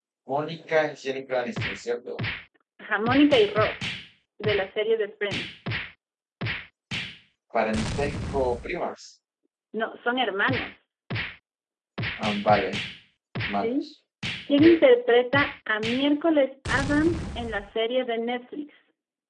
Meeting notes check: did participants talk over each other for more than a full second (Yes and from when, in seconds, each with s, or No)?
No